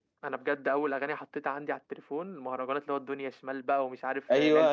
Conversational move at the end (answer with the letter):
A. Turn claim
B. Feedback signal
A